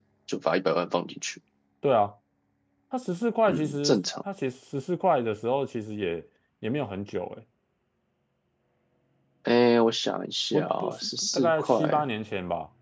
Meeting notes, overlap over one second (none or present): present